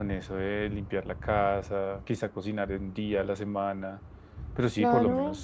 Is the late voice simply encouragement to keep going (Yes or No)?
No